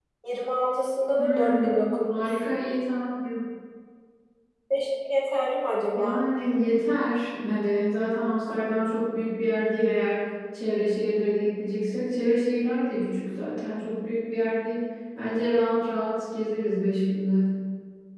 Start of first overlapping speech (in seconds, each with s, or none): 1.2 s